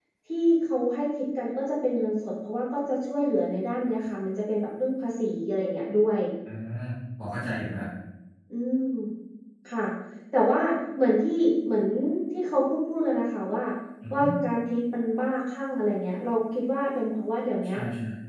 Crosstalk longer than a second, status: none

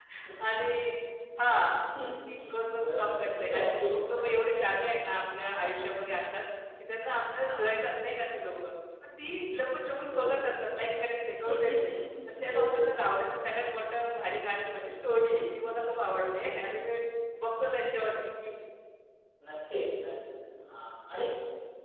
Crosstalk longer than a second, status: present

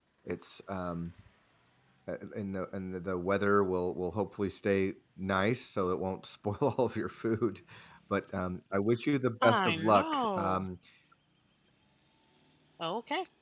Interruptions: present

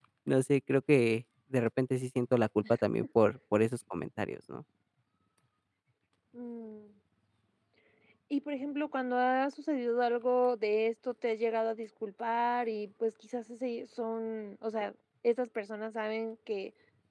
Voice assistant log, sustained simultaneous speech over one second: none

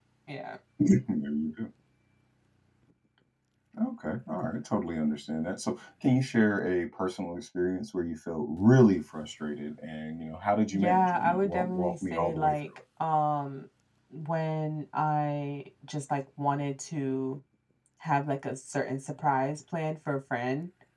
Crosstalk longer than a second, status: present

